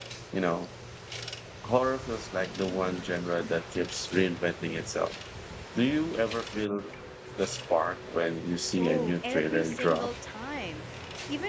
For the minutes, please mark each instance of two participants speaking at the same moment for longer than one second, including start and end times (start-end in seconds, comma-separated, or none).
8.8-10.1